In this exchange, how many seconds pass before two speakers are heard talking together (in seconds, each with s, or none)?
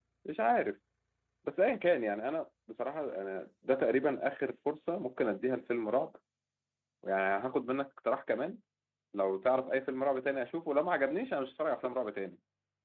none